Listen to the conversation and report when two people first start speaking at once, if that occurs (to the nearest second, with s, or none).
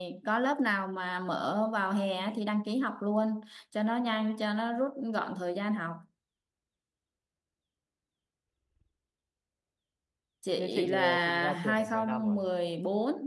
11 s